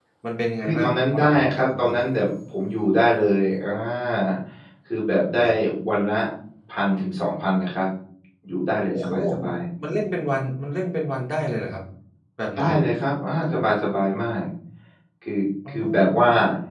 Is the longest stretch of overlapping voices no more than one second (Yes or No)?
No